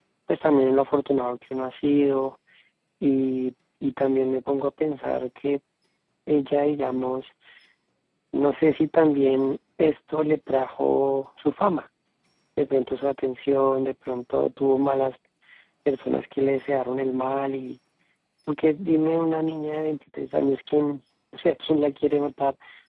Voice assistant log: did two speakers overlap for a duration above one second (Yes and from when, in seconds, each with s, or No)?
No